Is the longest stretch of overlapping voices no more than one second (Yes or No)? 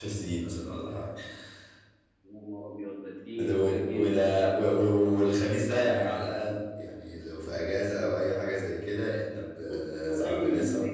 No